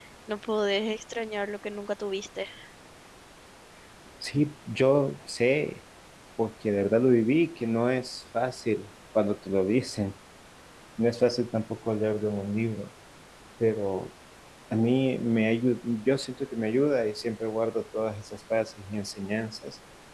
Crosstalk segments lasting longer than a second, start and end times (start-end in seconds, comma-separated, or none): none